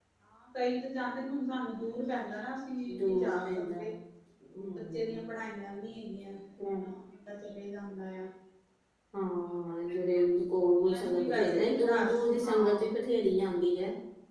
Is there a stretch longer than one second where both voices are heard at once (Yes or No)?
Yes